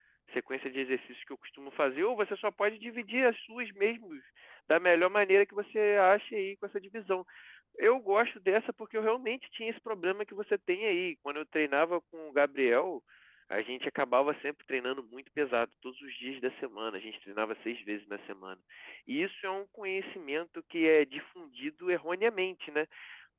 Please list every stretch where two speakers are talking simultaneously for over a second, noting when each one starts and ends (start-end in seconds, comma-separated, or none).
none